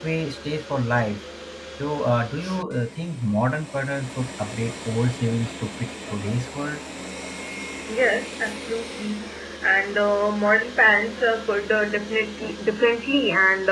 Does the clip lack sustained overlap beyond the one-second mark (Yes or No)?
Yes